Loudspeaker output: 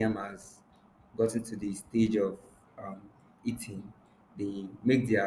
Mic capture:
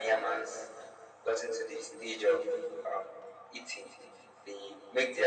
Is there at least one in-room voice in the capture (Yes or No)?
No